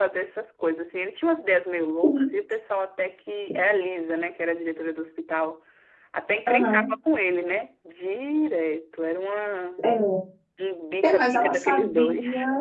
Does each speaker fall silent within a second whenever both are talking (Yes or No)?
No